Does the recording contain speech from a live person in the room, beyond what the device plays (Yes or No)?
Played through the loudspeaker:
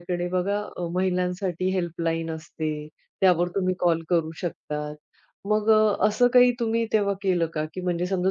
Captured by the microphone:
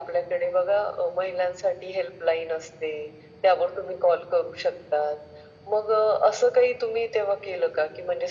No